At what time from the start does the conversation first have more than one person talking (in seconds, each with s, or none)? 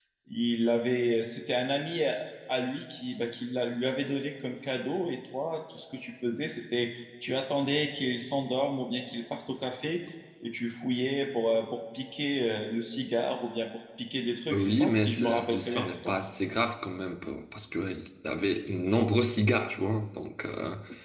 14.5 s